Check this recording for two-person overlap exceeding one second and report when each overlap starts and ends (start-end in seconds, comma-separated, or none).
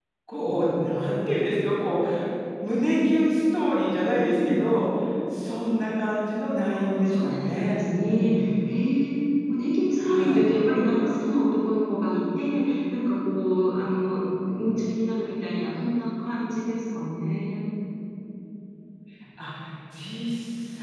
7.1-8.3